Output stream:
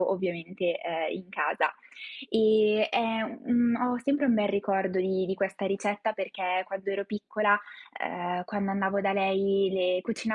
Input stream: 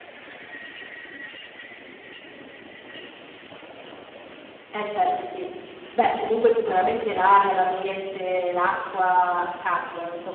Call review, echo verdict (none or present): none